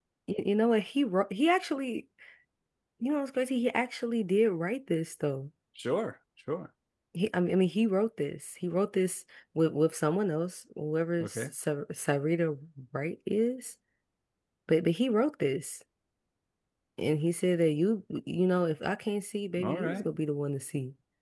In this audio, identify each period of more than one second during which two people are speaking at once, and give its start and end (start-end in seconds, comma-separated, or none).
none